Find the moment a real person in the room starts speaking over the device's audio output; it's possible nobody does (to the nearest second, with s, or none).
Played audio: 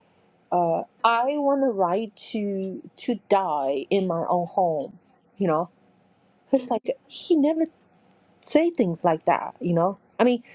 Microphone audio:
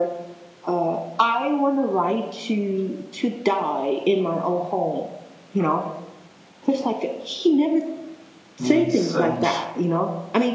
9 s